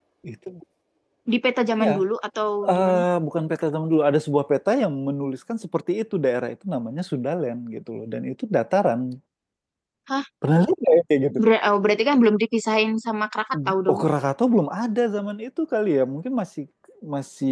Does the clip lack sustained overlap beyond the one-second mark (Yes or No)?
Yes